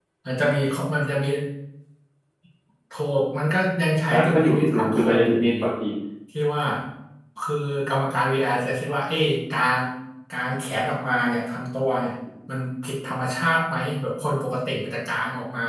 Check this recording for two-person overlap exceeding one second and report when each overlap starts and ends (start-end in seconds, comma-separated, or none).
4.1-5.5